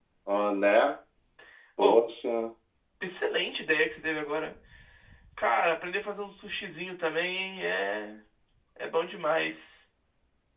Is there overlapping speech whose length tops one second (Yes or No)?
No